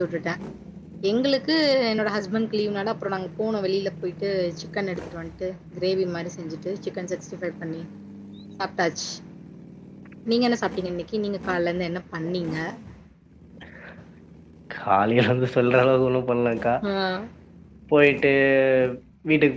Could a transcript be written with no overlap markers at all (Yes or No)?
Yes